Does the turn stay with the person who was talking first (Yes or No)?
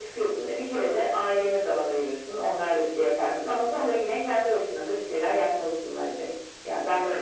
No